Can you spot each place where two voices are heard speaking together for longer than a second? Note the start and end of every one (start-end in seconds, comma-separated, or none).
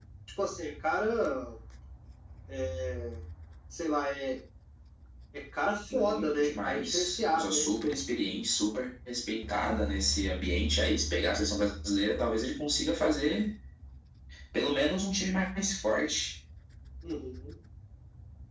5.9-7.7